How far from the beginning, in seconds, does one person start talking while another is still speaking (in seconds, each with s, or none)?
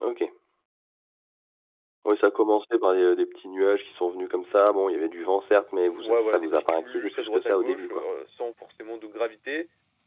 6.0 s